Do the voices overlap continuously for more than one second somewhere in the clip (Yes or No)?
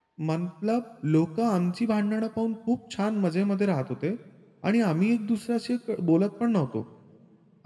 No